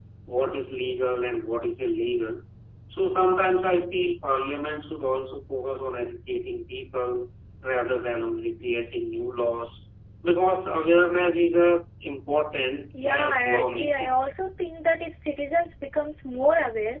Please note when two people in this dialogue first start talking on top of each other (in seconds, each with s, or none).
12.9 s